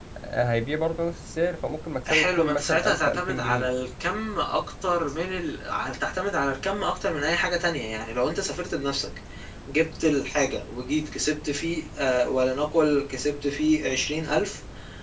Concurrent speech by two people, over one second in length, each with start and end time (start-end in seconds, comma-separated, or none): 2.0-3.7